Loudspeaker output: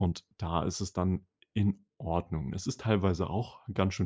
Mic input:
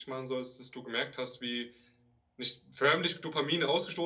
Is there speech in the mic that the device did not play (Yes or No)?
Yes